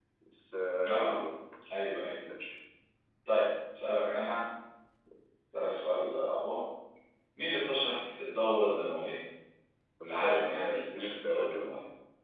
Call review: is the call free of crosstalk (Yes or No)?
No